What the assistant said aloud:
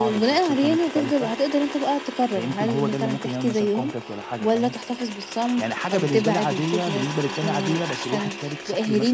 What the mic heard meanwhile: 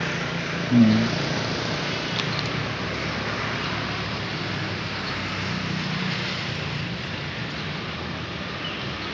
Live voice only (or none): إمم،